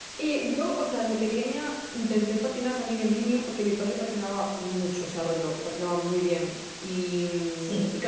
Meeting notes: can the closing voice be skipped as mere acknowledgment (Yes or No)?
Yes